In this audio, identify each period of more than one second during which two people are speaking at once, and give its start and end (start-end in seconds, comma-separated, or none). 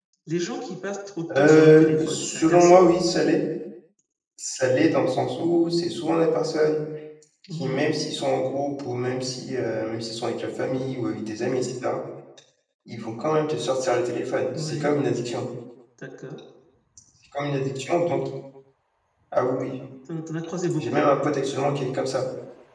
1.4-2.8